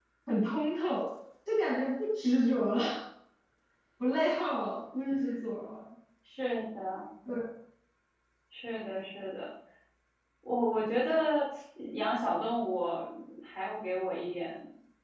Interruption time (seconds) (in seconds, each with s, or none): none